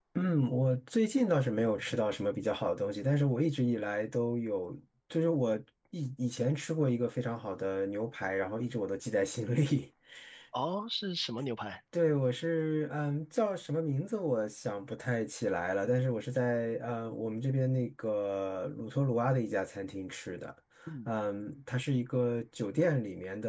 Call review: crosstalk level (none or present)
none